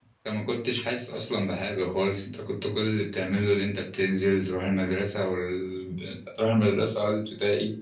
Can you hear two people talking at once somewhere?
No

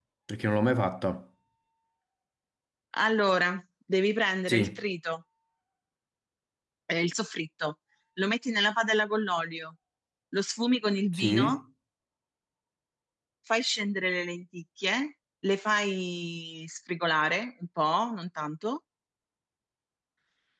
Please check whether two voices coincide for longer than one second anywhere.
No

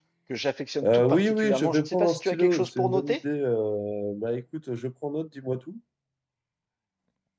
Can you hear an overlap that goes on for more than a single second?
Yes, from 0.8 s

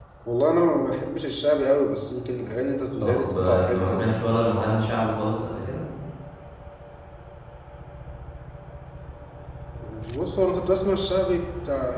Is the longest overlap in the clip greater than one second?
Yes, from 3.0 s

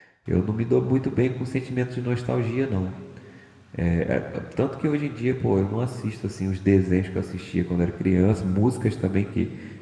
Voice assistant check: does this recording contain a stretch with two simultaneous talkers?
No

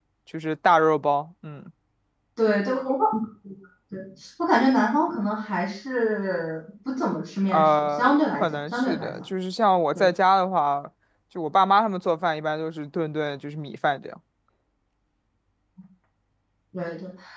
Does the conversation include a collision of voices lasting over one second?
Yes, from 7.5 s

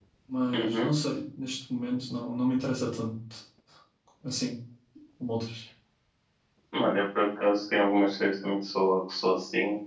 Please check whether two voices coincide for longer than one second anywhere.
No

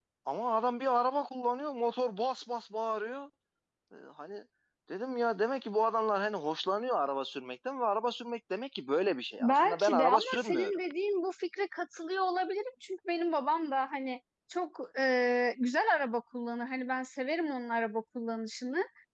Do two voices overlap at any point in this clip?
Yes, from 9.4 s

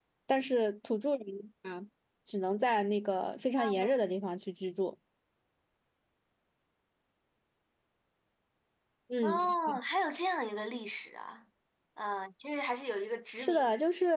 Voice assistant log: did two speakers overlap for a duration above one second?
No

